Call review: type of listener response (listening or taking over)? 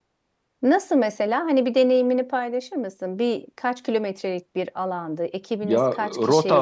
taking over